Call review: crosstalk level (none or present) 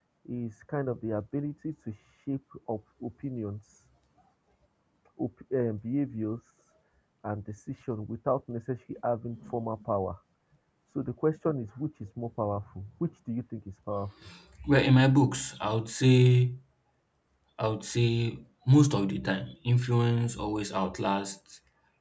none